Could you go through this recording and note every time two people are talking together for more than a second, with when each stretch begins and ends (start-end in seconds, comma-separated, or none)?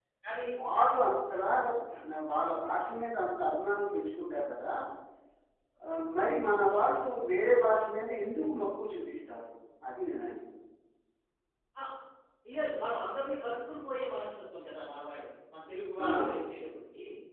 none